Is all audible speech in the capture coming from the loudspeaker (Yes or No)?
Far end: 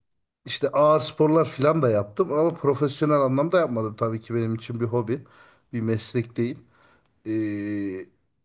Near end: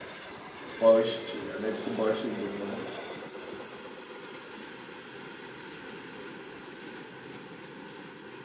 No